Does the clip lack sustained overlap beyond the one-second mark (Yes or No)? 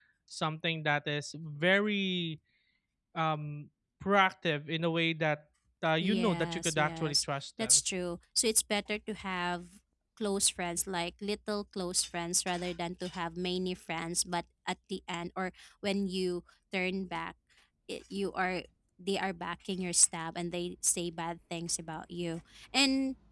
No